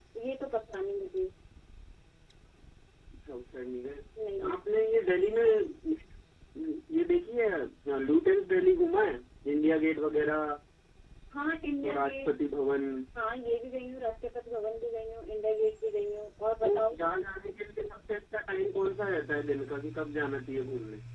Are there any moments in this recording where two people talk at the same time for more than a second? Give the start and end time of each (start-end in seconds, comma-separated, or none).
none